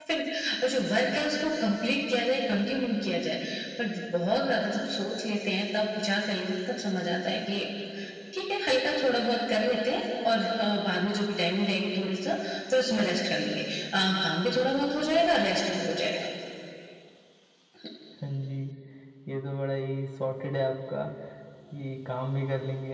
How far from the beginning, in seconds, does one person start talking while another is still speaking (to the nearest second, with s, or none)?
none